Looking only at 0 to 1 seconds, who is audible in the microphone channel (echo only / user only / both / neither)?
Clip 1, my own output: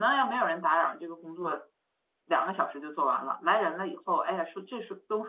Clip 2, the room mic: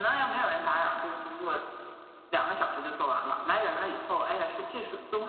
echo only